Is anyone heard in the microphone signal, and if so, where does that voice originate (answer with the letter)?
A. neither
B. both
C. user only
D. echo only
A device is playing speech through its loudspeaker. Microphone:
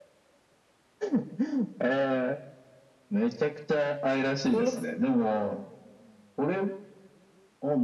B